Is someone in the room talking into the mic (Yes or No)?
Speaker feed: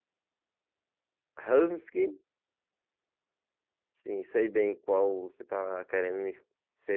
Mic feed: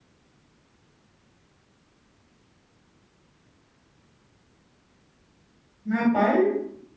Yes